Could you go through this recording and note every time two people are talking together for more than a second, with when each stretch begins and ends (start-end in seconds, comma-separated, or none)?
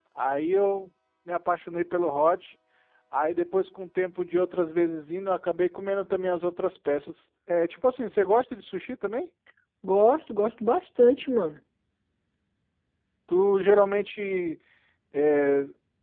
none